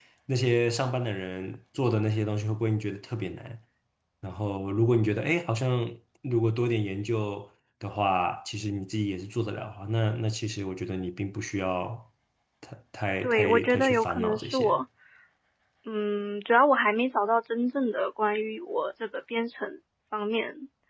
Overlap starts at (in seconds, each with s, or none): 13.2 s